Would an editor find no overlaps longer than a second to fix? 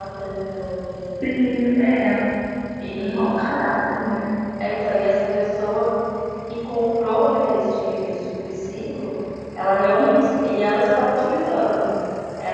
Yes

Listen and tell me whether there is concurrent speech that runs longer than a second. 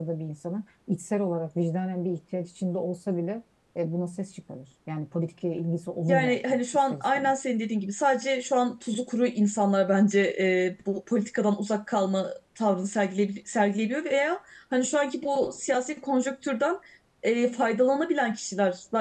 Yes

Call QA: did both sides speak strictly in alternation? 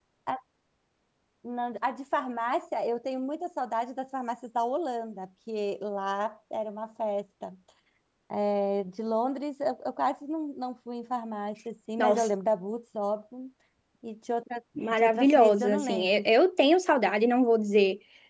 No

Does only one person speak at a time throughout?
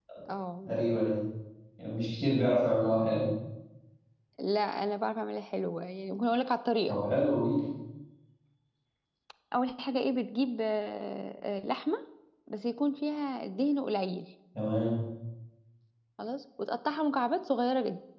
Yes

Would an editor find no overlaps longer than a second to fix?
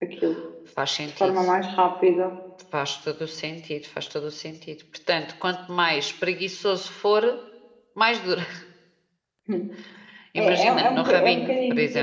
No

